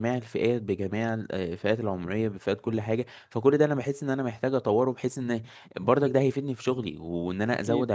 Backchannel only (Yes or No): Yes